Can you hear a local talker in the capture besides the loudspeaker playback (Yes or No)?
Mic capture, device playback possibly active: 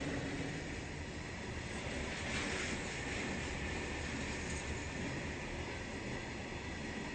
No